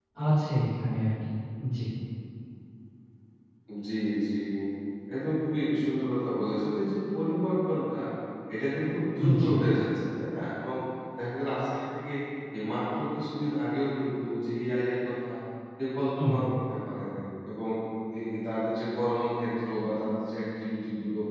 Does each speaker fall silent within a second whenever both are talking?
Yes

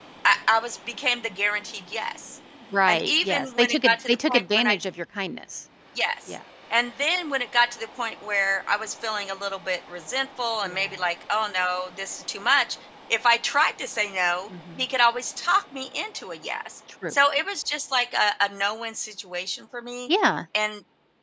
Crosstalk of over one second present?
Yes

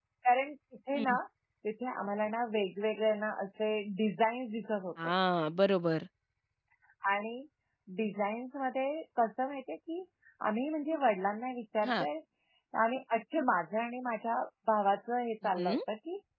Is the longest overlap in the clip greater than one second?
No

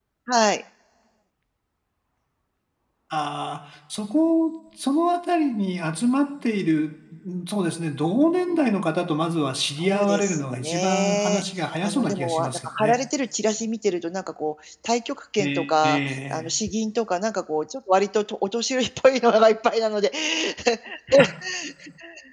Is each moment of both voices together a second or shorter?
No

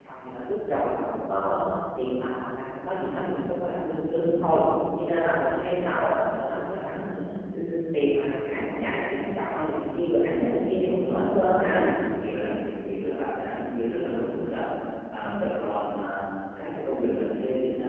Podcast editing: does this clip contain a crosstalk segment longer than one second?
Yes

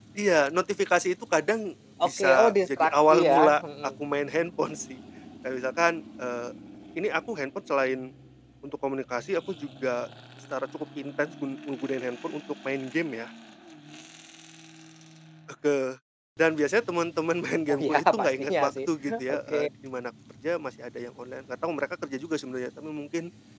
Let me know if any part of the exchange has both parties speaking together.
Yes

